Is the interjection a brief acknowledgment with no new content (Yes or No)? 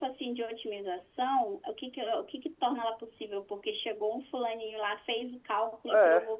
Yes